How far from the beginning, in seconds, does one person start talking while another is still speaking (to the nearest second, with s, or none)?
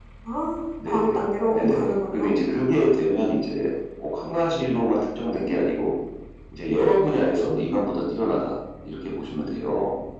1 s